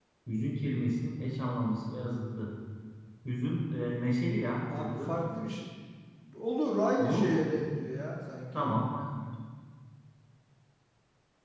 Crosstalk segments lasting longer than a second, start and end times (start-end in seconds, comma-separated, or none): none